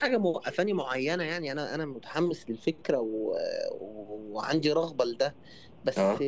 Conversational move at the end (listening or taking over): listening